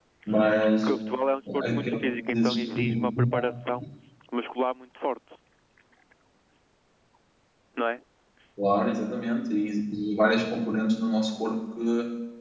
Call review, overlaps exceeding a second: present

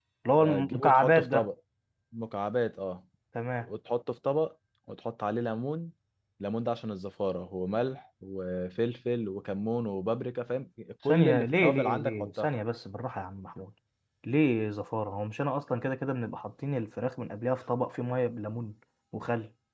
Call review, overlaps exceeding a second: present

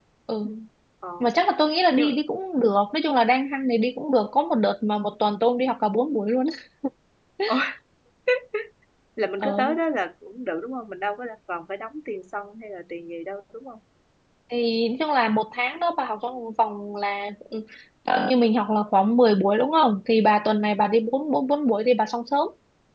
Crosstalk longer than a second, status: none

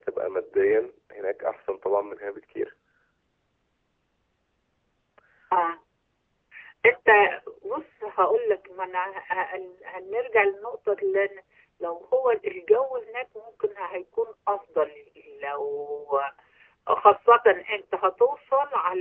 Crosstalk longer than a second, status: none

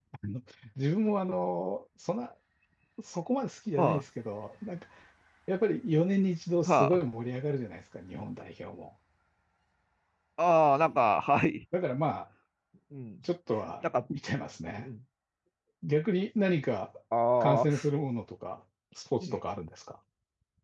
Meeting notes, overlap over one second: none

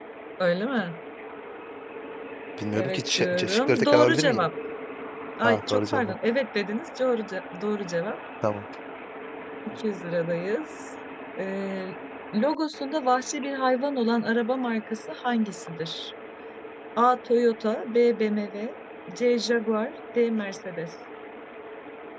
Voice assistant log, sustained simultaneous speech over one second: present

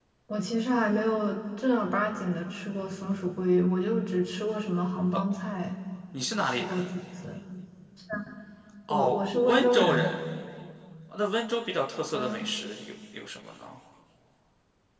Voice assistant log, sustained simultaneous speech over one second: present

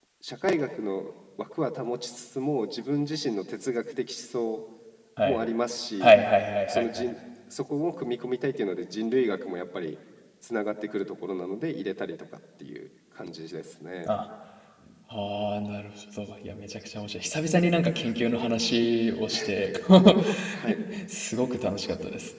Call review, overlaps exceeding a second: none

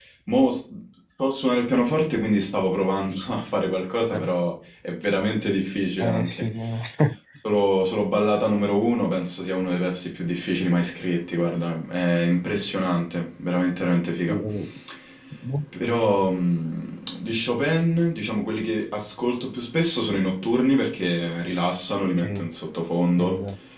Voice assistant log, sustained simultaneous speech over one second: none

